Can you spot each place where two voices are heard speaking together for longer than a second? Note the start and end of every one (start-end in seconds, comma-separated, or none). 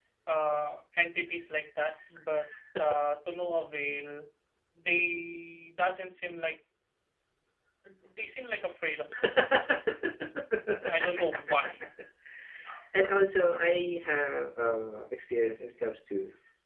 none